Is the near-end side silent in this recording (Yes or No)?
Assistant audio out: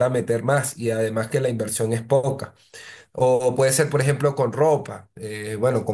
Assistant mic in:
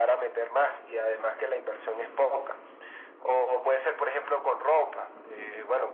Yes